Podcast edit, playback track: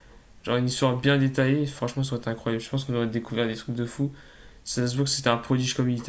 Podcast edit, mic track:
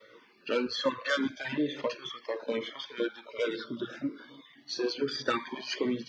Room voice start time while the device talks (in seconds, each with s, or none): none